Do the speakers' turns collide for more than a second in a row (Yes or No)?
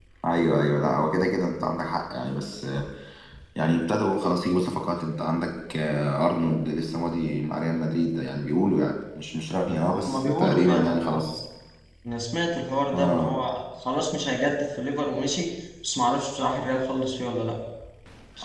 Yes